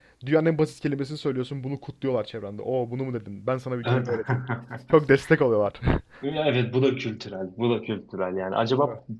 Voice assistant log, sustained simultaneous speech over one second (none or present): none